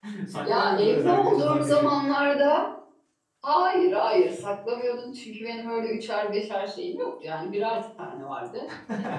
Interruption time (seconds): 1 s

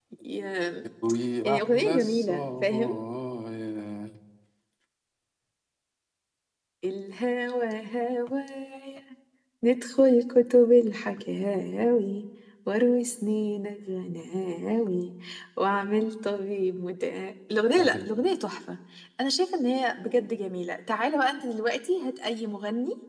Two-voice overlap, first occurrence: 1 s

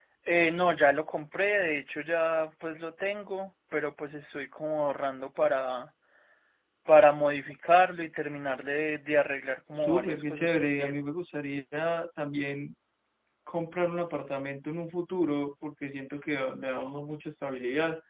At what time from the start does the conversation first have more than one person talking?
10 s

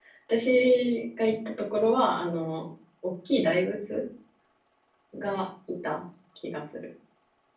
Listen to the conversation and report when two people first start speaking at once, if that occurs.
none

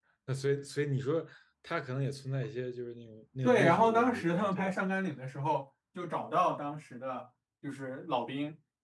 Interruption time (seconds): 3 s

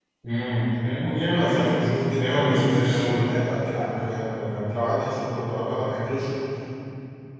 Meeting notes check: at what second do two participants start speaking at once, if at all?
1 s

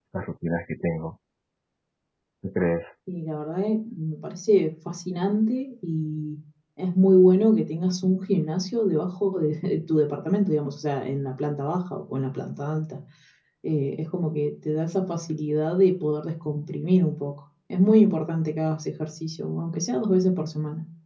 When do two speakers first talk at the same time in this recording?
none

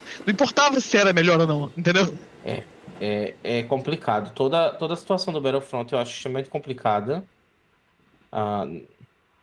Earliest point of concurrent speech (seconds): none

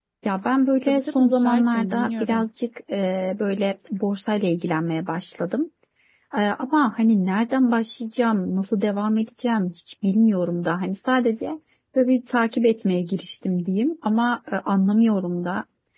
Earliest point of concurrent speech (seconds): 1 s

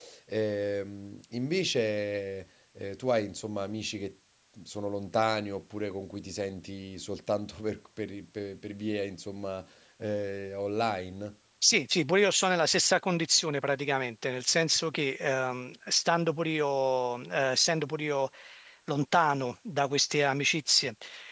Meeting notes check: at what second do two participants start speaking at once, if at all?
none

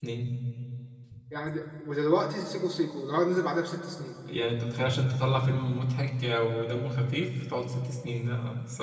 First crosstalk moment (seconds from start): none

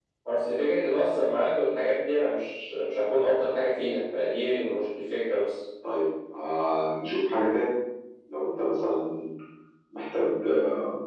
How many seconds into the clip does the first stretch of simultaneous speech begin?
none

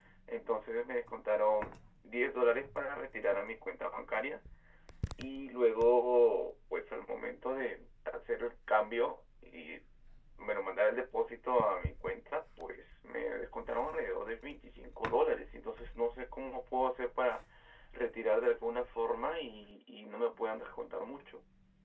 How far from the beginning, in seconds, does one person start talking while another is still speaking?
none

